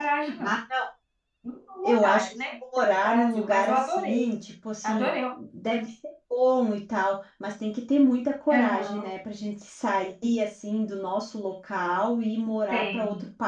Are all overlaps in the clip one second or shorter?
No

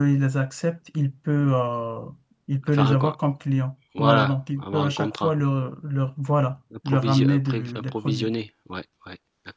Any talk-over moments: Yes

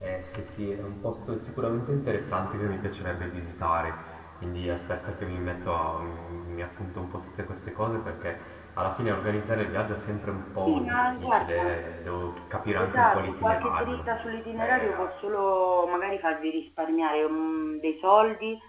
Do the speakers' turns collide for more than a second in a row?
Yes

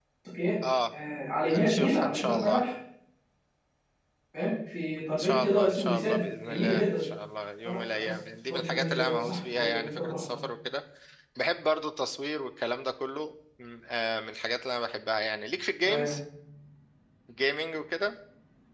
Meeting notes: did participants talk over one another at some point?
Yes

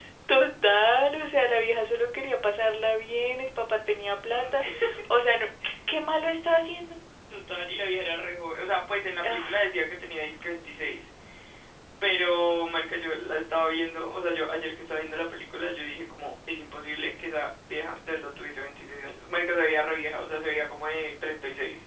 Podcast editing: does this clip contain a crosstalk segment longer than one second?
No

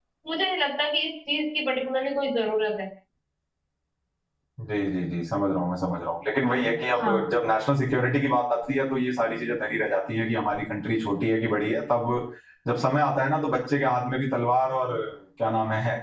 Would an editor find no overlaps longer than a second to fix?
Yes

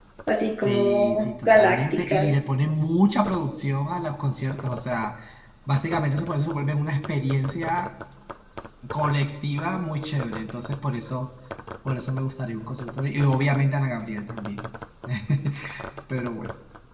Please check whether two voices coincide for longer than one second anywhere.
Yes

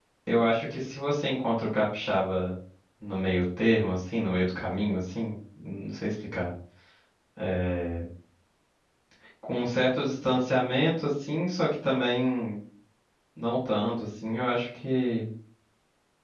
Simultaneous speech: No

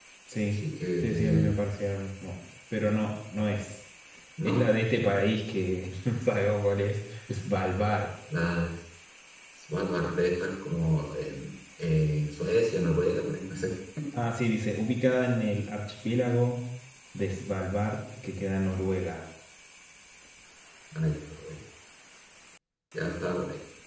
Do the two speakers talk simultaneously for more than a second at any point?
No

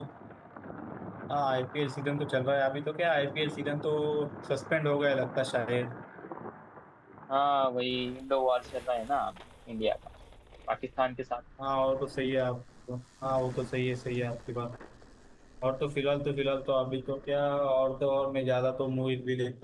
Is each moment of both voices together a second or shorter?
Yes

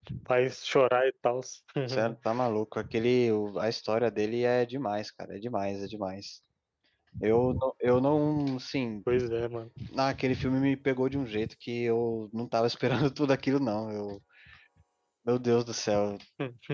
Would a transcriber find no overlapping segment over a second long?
Yes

